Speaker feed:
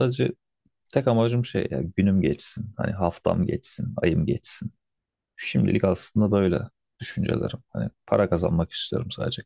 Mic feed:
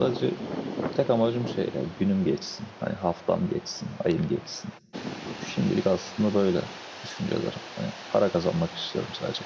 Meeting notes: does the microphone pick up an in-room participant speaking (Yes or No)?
No